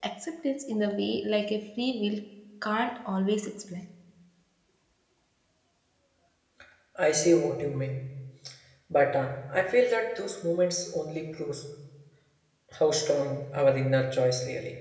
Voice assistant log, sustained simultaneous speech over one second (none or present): none